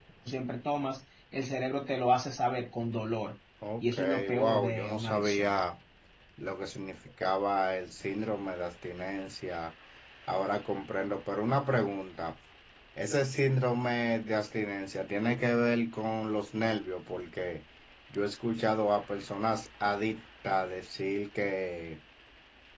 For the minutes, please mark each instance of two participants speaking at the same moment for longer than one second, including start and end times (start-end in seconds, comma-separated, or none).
3.8-5.5